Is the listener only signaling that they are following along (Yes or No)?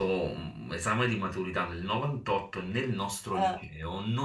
Yes